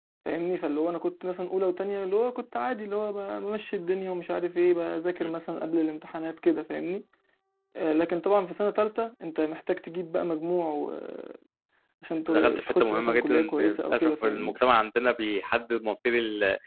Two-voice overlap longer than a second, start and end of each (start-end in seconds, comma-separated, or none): 12.3-14.6